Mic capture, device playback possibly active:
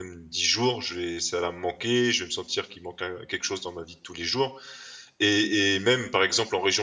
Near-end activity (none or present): present